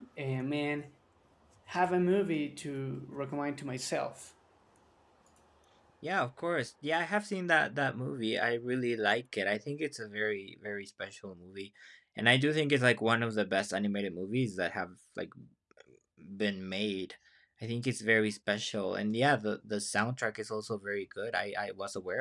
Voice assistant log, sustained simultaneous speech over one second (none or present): none